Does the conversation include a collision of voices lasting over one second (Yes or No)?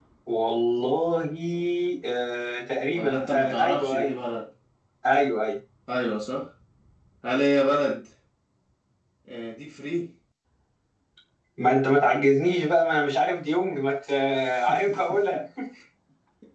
Yes